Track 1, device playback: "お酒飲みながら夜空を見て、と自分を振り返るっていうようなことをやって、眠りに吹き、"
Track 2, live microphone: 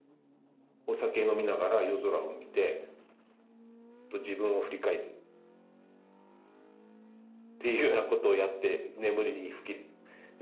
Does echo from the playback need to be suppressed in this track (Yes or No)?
Yes